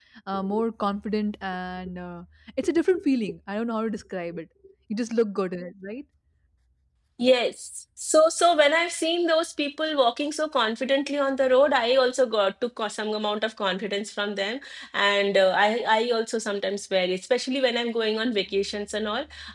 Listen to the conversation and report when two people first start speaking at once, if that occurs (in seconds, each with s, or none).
none